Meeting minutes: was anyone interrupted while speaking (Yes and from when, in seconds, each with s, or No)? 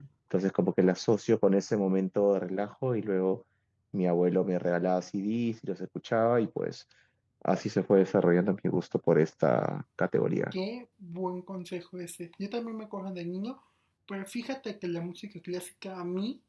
No